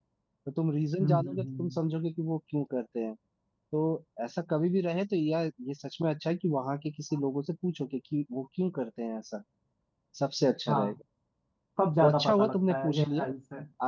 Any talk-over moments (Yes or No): Yes